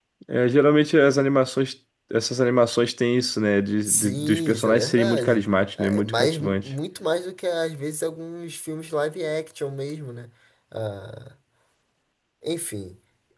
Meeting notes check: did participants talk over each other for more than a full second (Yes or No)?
Yes